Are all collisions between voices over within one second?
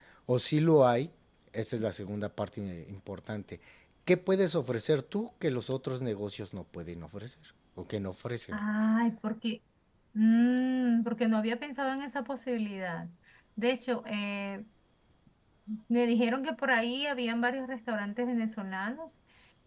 Yes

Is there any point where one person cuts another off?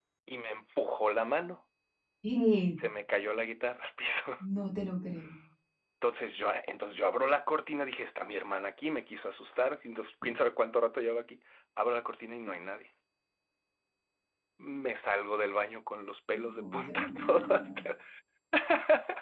Yes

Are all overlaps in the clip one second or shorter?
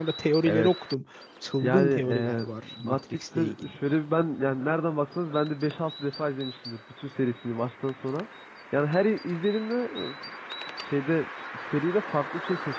No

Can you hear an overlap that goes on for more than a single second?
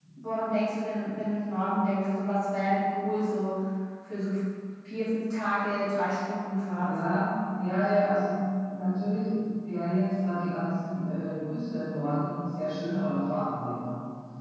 No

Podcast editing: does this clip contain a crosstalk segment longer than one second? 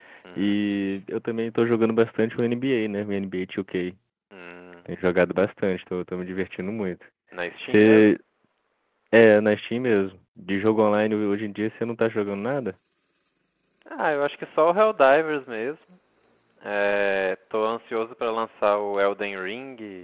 No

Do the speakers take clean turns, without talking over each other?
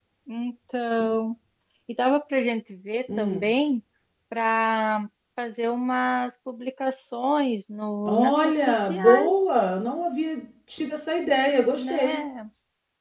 No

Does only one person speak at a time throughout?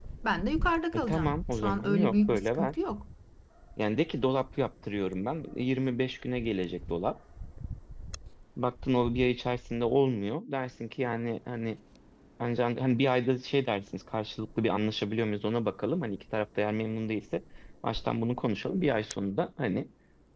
No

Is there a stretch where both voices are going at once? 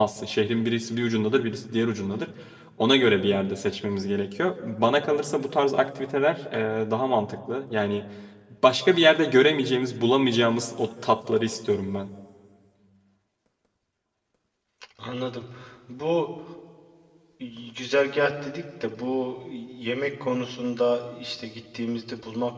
No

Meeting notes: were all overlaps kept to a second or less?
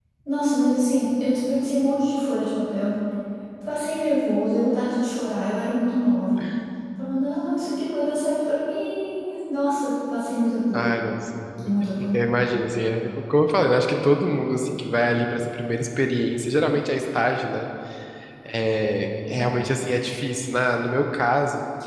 Yes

